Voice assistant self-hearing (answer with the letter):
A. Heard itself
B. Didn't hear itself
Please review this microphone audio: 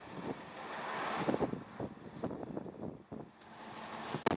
B